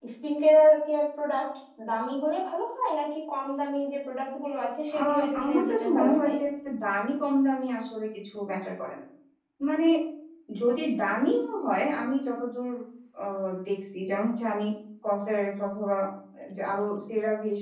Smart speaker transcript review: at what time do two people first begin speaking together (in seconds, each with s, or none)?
4.9 s